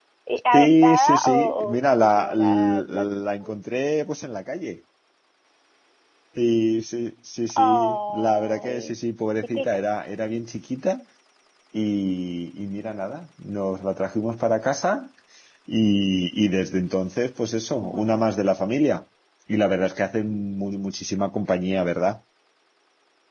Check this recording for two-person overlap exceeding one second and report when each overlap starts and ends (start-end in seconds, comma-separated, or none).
0.5-2.9, 7.5-8.9